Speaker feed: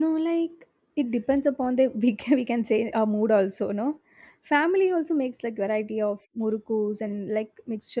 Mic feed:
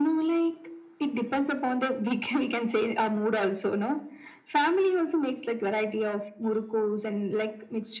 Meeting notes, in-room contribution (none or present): none